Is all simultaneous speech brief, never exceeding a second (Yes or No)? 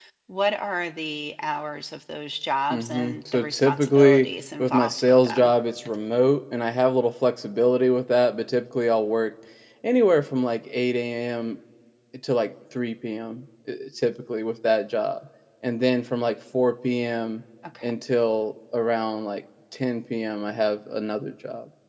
No